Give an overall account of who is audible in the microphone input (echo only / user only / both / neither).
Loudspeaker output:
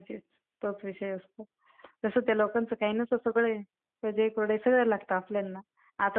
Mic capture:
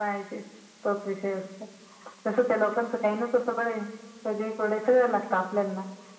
echo only